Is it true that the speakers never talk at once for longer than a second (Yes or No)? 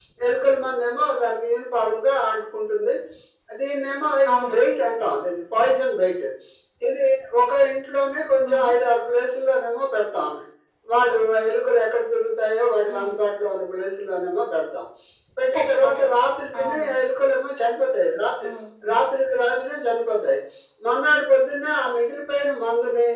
Yes